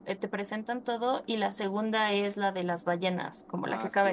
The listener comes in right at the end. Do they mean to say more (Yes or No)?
Yes